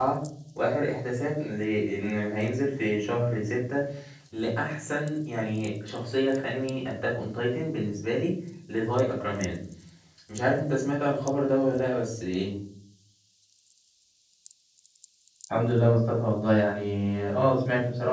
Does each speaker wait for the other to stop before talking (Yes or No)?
Yes